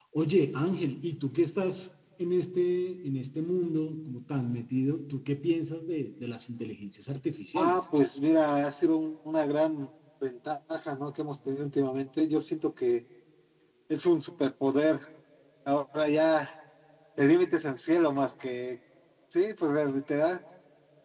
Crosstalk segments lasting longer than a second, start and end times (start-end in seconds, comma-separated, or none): none